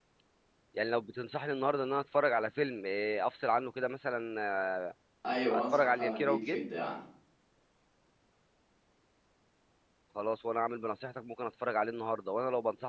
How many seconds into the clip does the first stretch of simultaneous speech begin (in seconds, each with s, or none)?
5.5 s